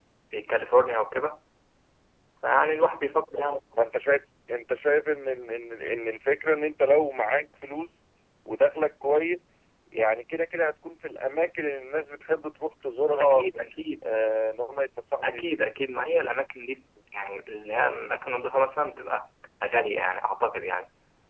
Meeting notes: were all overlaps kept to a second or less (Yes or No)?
Yes